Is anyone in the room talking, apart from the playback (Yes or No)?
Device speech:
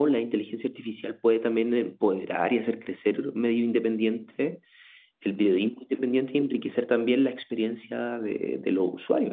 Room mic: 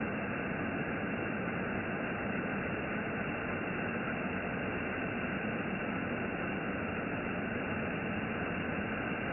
No